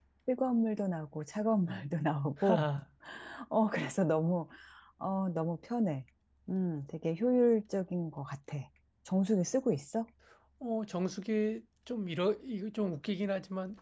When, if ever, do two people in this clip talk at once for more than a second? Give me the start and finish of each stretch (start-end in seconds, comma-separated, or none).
none